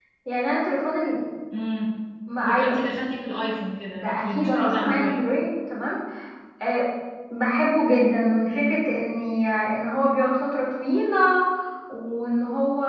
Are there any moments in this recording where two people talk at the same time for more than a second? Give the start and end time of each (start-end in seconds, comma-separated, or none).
3.9-5.2